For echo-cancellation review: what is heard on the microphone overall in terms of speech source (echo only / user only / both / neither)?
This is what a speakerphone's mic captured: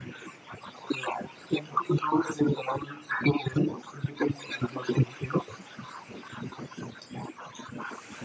echo only